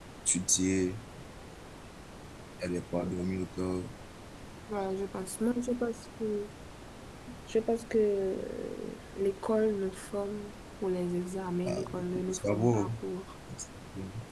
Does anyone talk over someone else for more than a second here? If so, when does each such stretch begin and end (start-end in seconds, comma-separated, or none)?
11.7-12.9